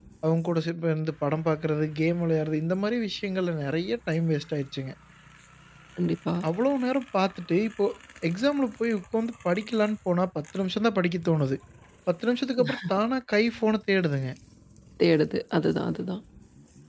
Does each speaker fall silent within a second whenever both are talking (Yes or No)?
Yes